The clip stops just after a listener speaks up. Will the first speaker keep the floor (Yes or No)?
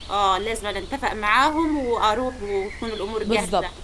No